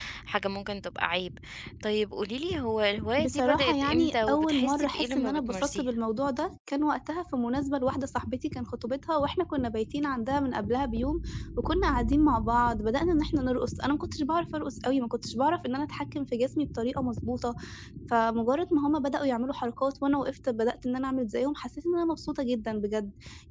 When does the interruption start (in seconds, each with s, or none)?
3.2 s